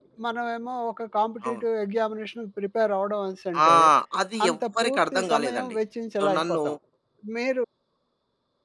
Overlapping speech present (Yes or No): Yes